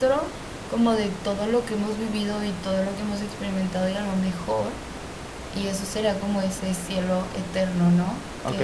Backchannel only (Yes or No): No